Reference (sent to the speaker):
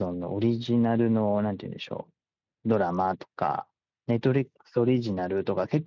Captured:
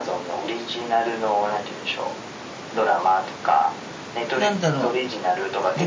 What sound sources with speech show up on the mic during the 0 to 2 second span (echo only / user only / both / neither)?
echo only